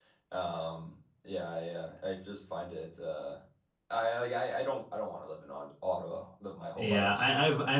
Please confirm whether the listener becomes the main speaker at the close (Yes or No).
Yes